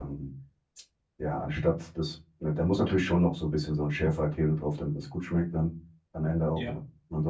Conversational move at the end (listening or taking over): listening